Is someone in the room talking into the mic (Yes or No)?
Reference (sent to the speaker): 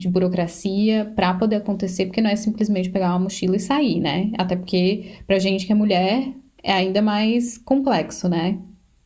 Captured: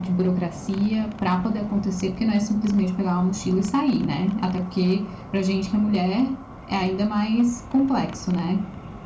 No